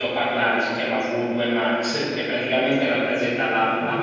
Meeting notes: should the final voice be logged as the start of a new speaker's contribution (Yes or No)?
No